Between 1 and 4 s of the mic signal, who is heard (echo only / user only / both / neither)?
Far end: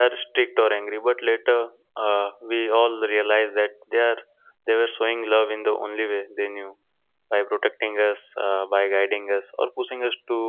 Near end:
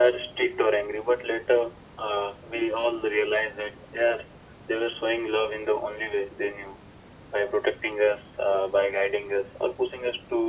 echo only